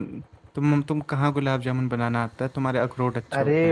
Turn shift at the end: Yes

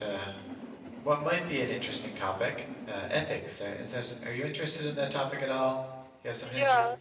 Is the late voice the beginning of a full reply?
Yes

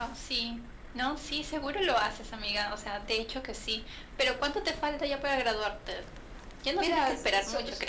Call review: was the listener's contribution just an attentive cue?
No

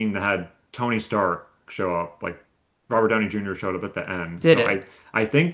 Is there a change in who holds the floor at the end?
No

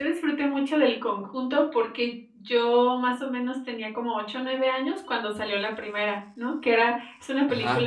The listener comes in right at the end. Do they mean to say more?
No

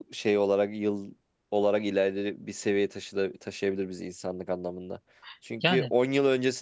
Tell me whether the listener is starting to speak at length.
No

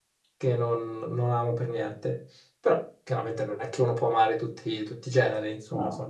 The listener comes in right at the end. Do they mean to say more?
No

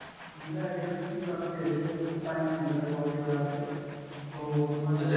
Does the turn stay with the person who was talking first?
No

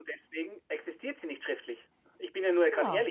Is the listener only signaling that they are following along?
No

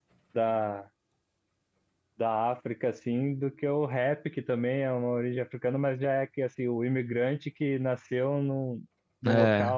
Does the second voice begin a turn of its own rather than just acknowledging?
No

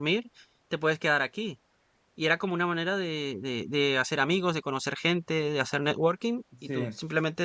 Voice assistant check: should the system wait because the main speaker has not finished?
Yes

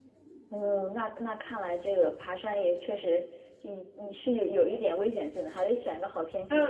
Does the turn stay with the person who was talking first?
No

